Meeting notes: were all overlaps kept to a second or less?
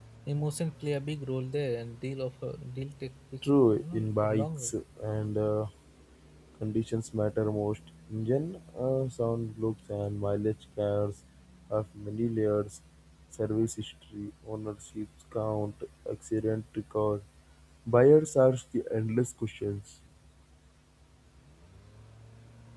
No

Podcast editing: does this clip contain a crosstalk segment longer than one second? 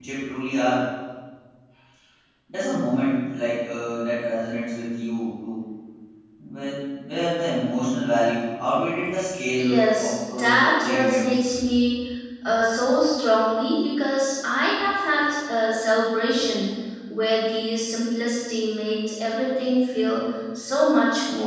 Yes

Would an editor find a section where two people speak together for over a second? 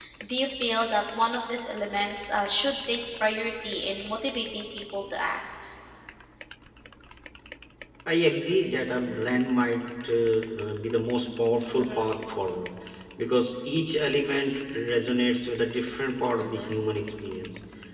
No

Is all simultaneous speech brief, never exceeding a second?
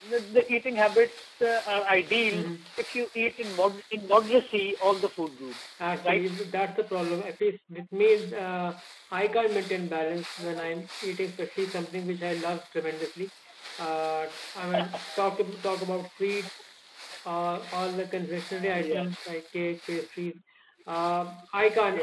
Yes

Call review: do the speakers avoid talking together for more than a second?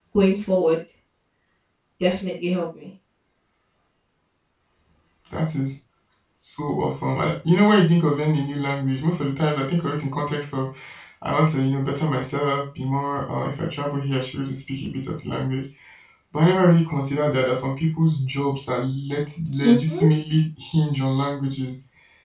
Yes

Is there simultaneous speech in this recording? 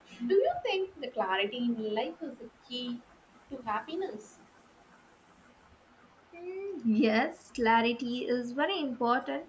No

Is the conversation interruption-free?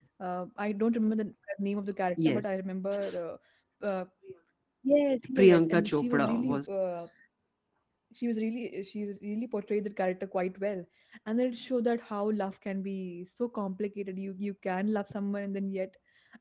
No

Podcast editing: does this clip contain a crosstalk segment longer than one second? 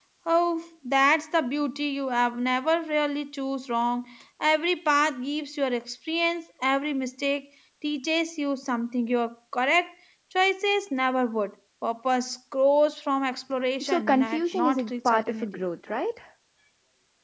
Yes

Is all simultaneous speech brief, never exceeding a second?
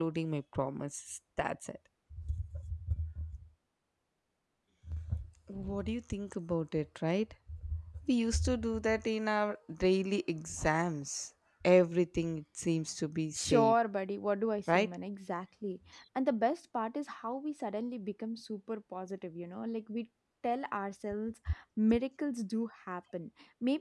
Yes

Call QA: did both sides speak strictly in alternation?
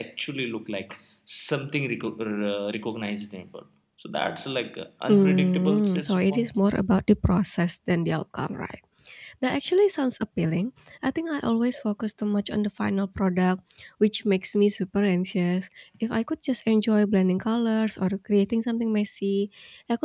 No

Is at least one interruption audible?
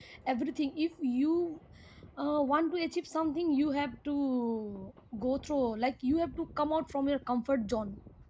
No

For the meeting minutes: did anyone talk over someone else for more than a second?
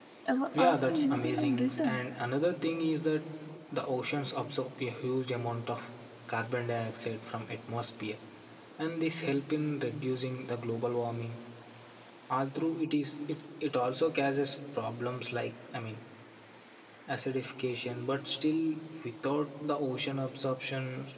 Yes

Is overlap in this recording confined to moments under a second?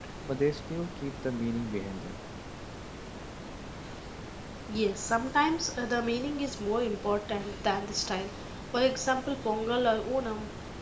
Yes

